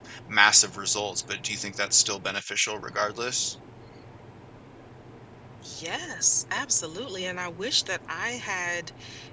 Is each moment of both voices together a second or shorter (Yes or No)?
Yes